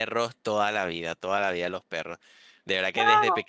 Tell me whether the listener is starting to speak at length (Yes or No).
No